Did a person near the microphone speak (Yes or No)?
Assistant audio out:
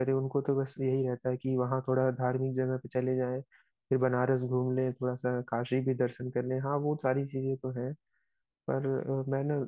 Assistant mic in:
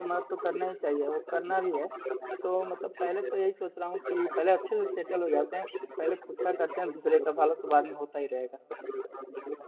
Yes